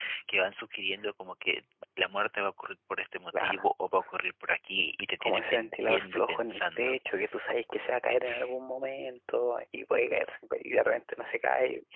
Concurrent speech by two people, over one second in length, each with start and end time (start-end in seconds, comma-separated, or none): 5.2-7.0